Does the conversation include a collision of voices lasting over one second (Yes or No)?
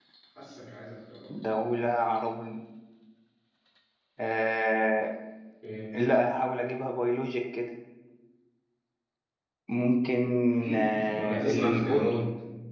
Yes